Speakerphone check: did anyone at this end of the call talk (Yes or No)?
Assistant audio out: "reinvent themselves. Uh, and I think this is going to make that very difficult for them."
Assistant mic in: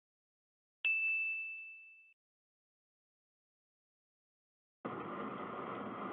No